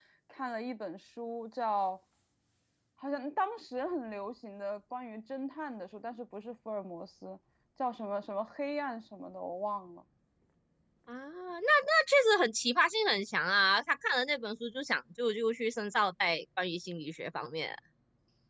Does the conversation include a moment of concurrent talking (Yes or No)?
No